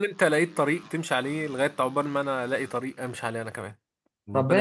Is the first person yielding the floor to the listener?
Yes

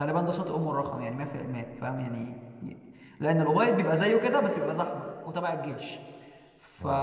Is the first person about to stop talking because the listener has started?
No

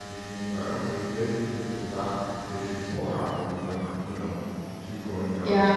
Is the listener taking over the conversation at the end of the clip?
Yes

